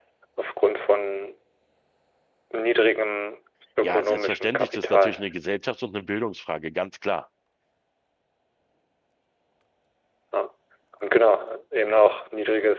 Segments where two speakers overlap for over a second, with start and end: 3.8-5.2

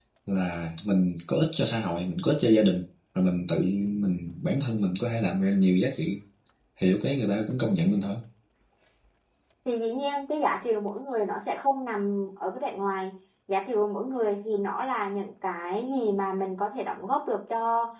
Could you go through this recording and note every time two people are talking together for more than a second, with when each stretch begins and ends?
none

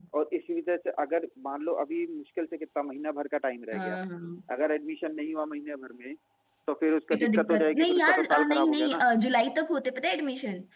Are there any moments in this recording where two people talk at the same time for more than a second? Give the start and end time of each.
7.1-9.0

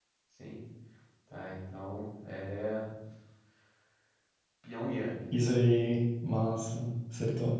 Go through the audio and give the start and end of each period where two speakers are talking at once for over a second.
none

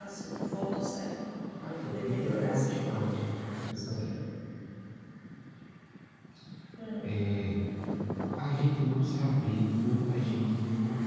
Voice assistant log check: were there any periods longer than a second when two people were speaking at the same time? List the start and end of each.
1.6-3.2

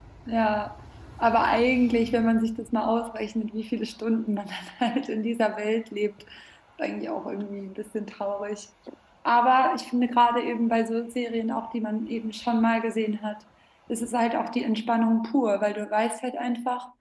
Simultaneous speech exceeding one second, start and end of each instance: none

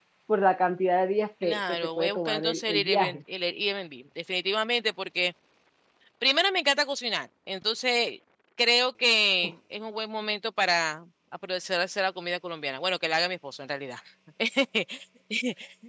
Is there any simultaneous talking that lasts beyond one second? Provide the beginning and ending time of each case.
1.4-3.2

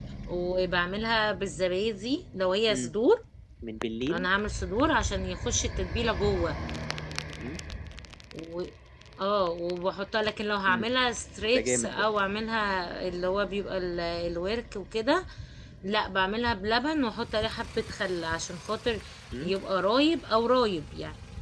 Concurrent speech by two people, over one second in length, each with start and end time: none

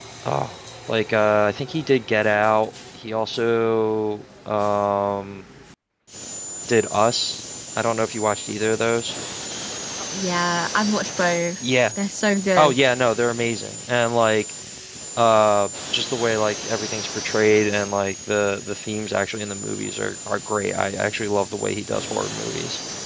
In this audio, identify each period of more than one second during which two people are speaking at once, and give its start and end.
none

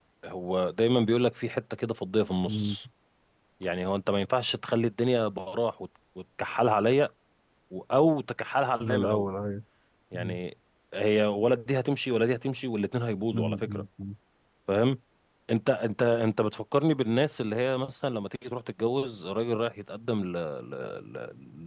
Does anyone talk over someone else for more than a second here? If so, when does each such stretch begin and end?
none

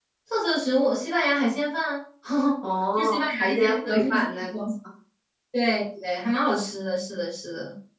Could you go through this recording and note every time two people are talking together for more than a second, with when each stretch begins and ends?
3.0-4.5

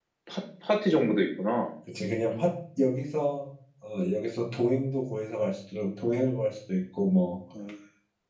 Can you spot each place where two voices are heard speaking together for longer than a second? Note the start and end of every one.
none

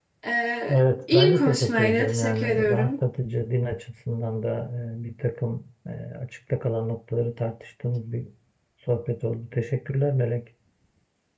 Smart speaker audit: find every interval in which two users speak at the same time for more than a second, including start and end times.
1.1-3.0

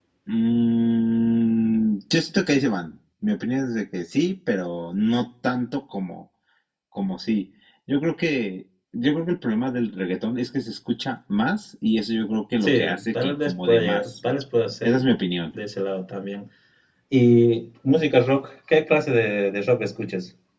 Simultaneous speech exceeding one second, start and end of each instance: 12.6-14.1

